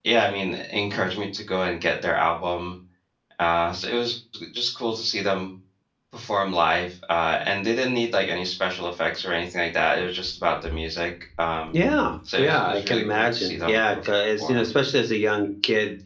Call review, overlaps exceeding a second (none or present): present